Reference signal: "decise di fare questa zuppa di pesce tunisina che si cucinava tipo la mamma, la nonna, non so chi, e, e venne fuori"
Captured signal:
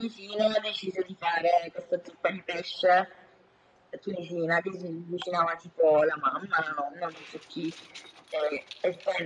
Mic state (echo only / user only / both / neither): echo only